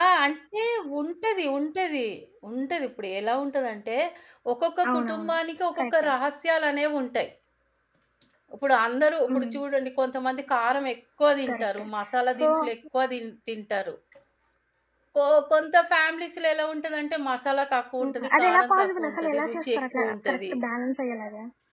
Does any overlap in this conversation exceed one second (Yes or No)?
Yes